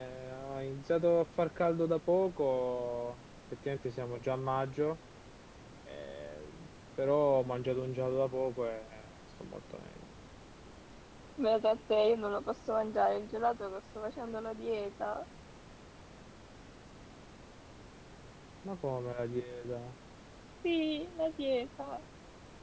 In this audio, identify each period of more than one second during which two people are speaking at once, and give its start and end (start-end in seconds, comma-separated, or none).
none